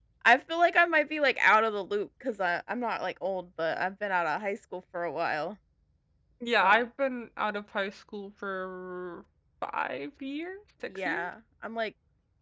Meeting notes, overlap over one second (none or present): none